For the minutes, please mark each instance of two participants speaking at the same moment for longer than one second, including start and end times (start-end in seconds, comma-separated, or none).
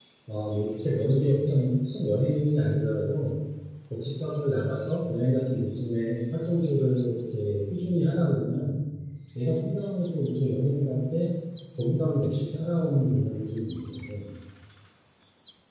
none